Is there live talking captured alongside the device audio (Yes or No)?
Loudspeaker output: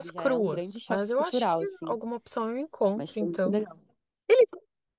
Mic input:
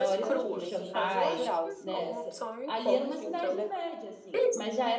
Yes